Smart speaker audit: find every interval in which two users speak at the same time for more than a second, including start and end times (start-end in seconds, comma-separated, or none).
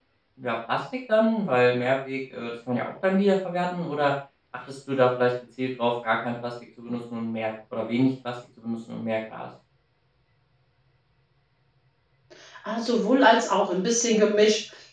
none